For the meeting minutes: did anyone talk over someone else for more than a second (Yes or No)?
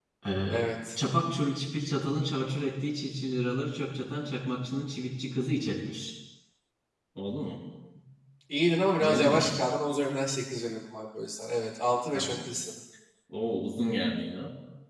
No